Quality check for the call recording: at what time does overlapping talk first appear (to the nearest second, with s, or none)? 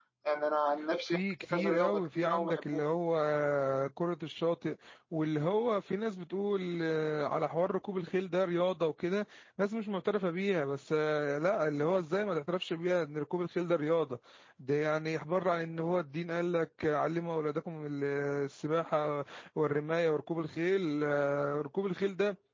1 s